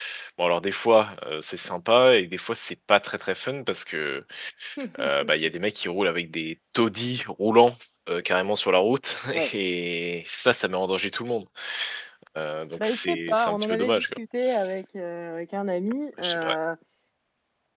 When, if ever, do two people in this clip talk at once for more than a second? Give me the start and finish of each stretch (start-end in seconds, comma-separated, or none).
12.8-14.2